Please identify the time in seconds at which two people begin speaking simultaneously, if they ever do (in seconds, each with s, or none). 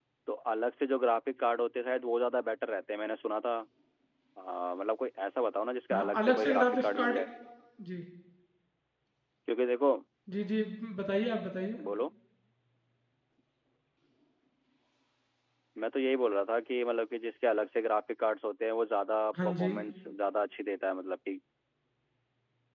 5.9 s